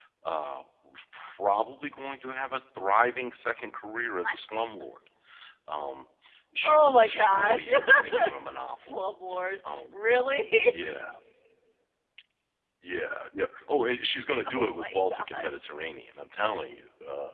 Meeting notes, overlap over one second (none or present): present